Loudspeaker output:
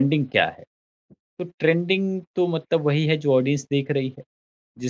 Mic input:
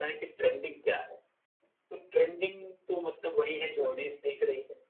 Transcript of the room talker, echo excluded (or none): none